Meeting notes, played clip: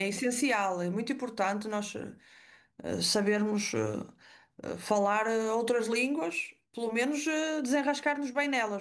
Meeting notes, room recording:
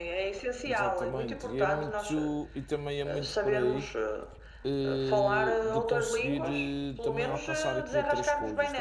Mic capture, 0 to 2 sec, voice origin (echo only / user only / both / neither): both